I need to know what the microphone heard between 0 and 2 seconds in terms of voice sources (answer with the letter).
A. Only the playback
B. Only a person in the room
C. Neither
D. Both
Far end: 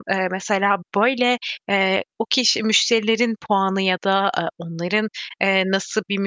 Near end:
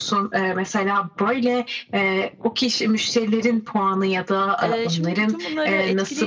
A